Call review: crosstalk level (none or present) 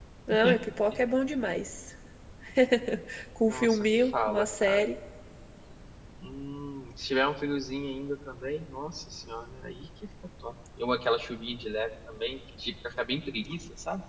present